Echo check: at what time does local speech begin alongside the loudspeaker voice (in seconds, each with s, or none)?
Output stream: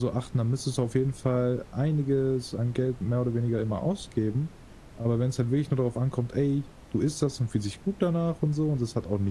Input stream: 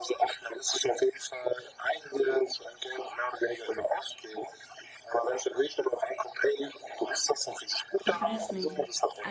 8.0 s